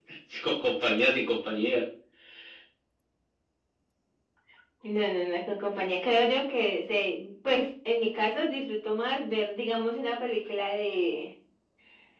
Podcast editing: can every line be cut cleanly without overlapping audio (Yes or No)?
Yes